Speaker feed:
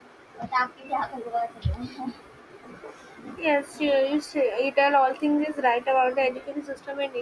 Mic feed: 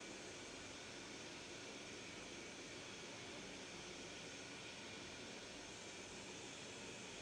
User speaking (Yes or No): No